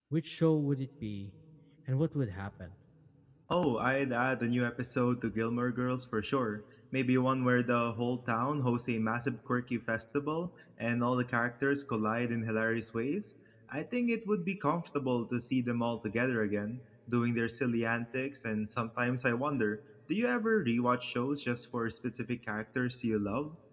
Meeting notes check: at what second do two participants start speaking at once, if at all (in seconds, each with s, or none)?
none